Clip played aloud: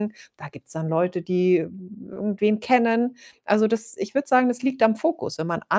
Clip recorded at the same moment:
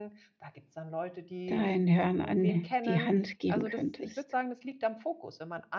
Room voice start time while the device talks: 1 s

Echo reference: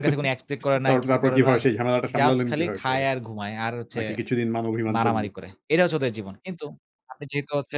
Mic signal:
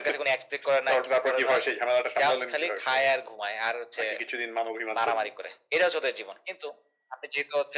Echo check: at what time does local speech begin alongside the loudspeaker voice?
none

